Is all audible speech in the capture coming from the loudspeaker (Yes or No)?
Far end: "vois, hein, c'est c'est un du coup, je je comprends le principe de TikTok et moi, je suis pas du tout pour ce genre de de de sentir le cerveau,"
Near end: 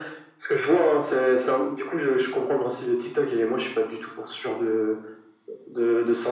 Yes